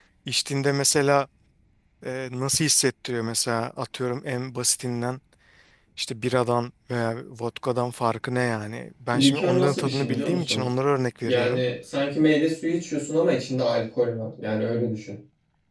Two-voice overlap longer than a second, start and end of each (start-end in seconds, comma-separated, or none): 9.1-10.7